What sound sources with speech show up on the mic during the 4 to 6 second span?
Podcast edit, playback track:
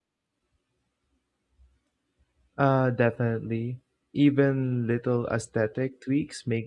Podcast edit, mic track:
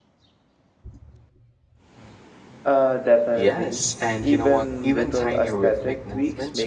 both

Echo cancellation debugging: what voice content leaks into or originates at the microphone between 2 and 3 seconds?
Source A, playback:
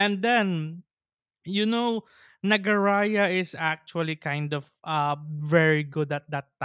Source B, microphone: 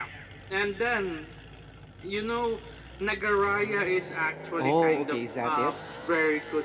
echo only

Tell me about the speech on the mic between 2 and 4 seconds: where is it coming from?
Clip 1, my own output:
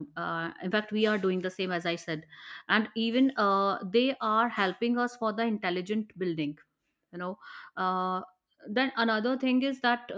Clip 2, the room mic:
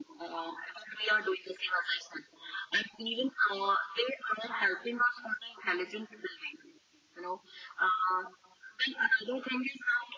echo only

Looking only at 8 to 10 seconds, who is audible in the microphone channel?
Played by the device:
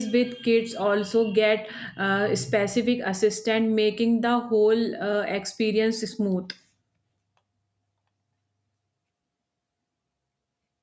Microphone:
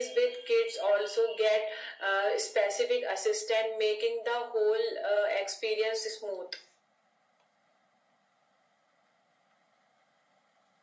neither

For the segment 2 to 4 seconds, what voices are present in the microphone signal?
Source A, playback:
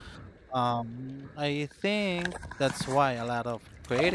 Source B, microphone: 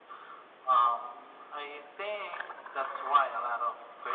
echo only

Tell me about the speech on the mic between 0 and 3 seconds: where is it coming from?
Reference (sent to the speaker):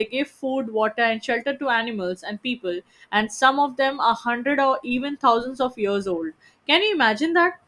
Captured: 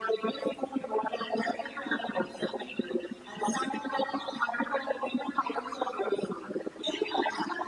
echo only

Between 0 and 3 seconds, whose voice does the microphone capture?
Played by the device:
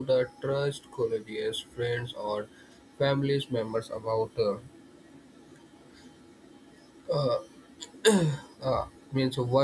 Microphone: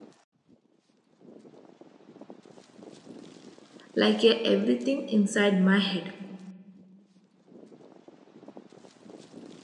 neither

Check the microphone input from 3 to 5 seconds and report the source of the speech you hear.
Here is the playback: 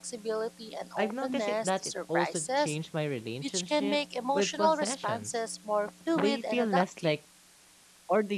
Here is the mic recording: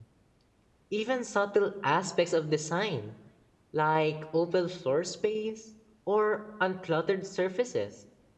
user only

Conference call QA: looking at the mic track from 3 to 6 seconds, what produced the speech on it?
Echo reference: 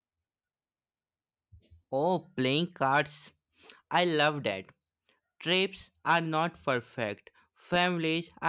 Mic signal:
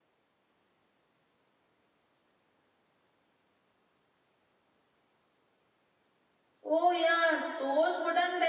neither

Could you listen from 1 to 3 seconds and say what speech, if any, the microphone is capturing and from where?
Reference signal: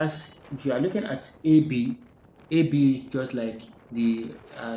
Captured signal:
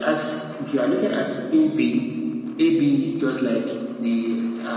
echo only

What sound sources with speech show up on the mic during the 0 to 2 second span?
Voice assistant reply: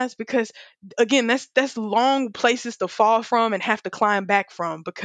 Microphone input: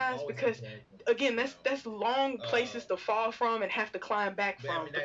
both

